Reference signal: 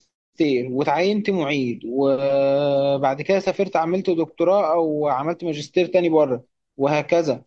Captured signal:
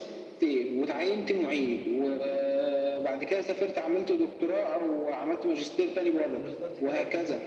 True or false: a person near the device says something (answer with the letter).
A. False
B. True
B